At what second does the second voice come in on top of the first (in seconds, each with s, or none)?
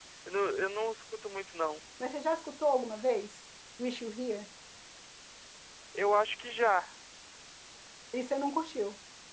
none